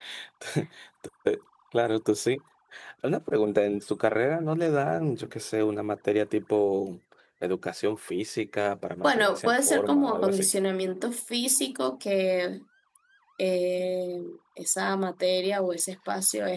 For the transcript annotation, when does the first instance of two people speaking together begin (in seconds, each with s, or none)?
9.0 s